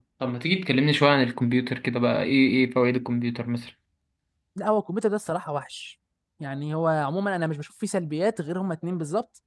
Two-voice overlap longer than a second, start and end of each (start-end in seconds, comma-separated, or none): none